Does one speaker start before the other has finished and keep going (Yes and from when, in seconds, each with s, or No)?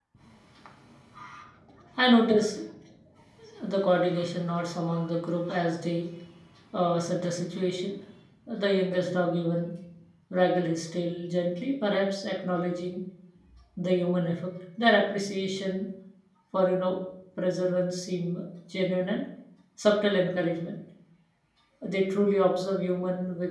No